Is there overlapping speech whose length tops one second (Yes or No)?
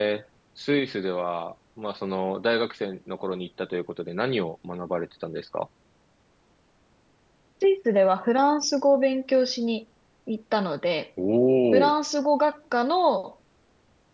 No